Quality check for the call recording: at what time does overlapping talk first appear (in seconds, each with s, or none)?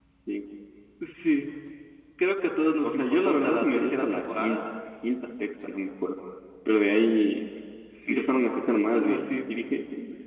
2.8 s